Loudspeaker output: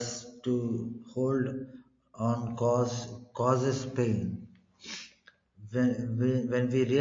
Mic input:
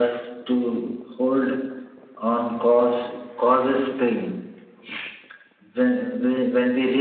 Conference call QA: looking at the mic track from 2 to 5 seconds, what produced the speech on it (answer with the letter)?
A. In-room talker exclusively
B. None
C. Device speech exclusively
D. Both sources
C